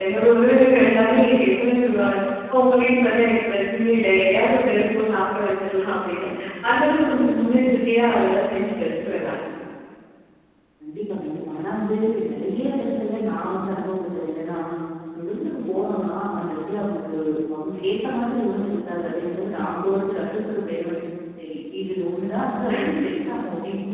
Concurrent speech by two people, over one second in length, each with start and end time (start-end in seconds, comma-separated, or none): none